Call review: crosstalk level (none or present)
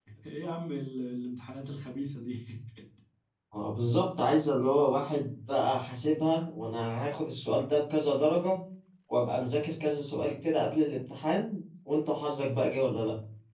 none